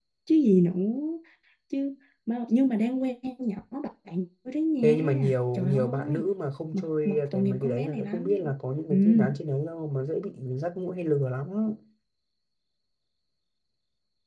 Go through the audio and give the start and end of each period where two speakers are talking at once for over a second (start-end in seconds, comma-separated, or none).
4.8-6.2, 6.7-8.4